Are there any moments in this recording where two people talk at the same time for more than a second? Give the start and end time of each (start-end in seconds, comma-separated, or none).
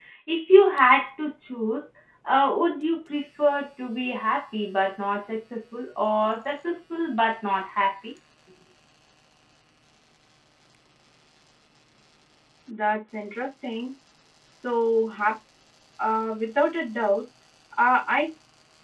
none